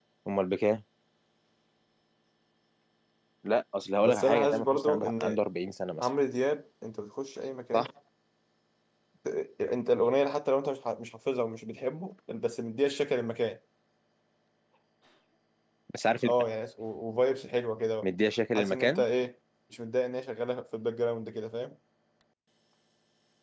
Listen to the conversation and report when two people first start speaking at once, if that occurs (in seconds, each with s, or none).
4.0 s